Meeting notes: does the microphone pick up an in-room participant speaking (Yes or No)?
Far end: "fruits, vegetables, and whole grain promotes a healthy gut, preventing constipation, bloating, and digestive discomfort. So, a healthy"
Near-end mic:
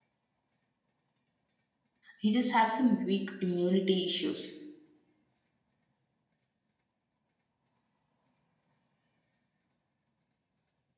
Yes